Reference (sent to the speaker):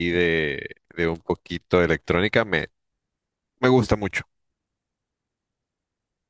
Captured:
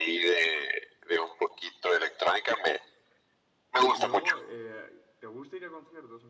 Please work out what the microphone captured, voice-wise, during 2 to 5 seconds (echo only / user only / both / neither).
both